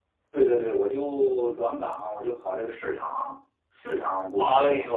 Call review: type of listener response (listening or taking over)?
taking over